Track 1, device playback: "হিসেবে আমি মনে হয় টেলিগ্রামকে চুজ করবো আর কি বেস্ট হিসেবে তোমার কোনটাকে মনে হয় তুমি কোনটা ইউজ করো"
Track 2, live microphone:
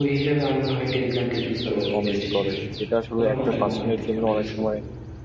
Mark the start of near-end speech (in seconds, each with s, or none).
1.9 s